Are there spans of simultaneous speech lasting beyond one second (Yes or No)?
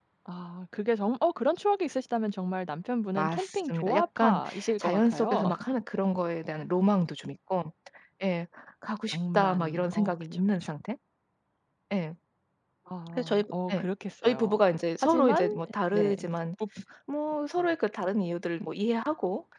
Yes